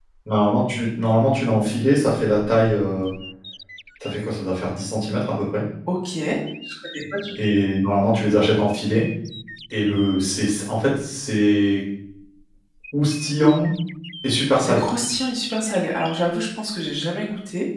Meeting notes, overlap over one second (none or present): none